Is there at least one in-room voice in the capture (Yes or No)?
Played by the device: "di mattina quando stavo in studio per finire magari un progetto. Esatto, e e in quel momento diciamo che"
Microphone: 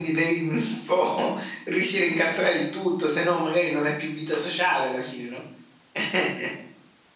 Yes